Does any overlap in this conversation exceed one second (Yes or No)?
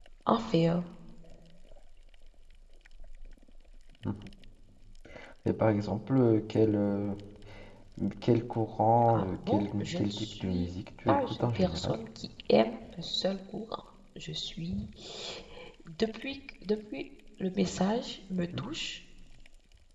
Yes